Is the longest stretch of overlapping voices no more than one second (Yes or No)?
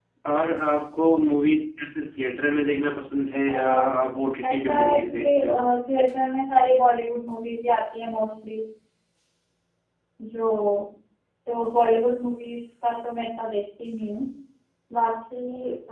No